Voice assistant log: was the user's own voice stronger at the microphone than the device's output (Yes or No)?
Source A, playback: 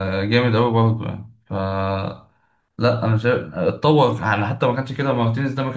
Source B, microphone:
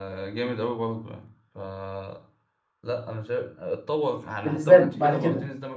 Yes